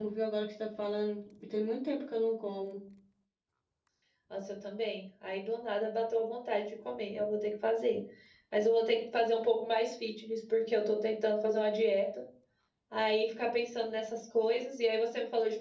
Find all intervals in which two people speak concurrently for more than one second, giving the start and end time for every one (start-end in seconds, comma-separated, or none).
none